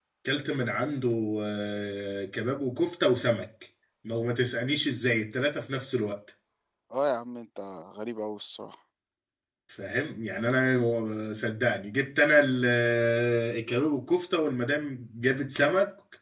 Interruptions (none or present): none